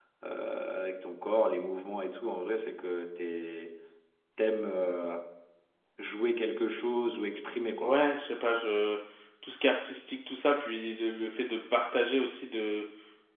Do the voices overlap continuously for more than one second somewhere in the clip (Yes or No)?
No